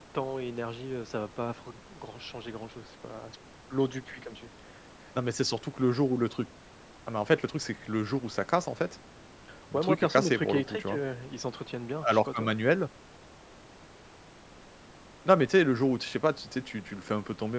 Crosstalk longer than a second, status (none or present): present